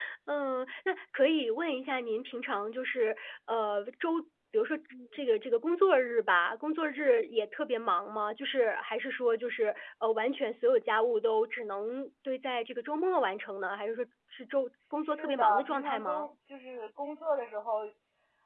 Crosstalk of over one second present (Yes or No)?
Yes